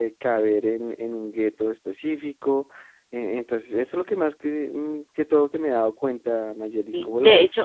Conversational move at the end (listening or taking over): taking over